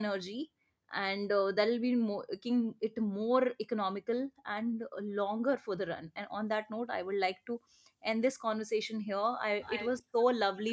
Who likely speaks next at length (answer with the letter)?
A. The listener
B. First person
B